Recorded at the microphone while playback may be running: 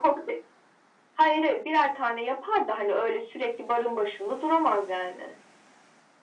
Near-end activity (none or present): none